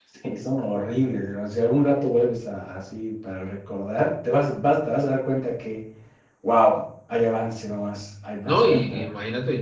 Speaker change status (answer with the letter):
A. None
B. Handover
B